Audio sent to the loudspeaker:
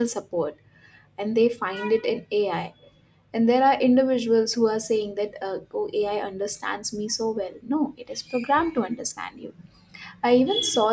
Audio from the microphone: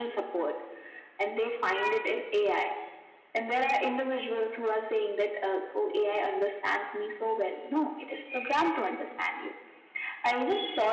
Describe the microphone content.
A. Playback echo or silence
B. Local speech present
A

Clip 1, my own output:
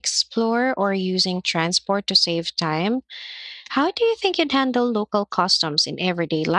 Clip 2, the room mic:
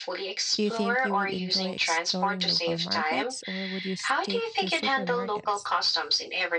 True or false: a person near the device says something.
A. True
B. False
A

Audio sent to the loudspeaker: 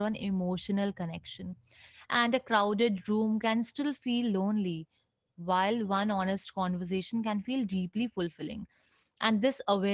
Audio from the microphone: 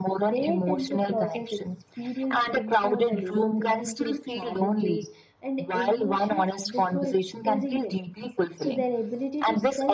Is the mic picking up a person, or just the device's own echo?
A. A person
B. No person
A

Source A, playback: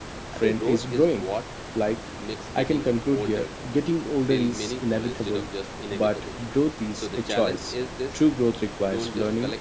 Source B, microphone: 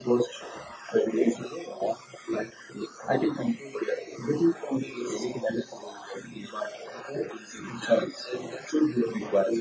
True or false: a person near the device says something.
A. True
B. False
B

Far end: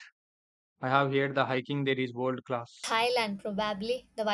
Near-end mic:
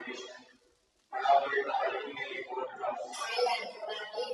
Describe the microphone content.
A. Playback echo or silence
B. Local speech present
A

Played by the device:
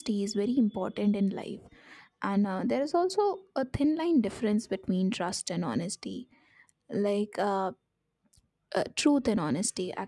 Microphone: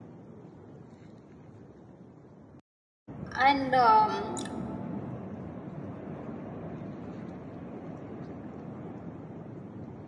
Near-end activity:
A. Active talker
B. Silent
A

